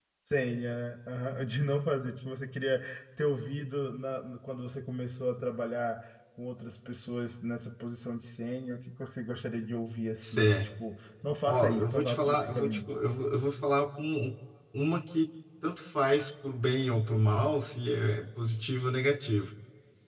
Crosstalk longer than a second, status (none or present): present